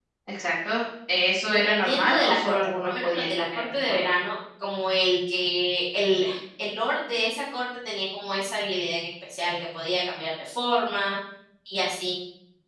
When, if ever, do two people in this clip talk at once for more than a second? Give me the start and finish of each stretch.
1.4-4.1

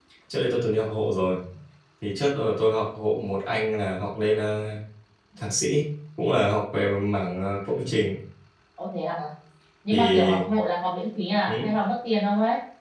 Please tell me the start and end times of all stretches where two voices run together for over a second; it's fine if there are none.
none

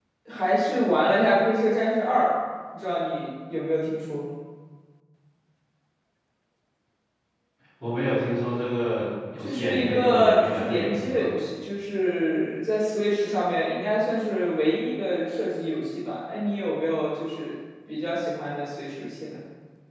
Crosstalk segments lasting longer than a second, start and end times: 9.4-11.3

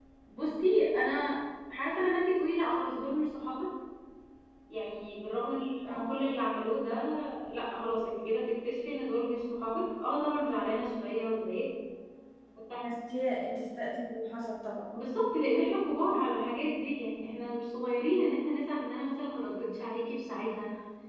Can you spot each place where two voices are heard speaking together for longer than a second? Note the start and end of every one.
none

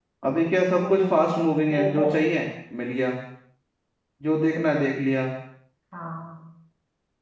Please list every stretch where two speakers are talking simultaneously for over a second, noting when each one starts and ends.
0.8-2.2

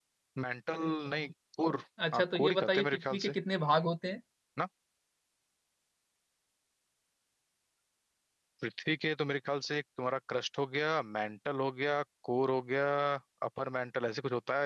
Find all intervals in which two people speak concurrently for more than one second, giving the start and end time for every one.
2.1-3.4

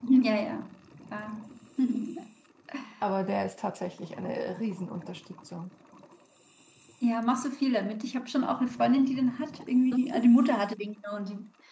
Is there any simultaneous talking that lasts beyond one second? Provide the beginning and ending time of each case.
none

